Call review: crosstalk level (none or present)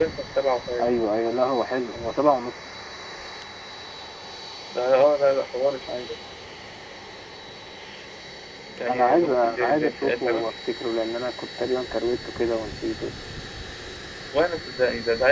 present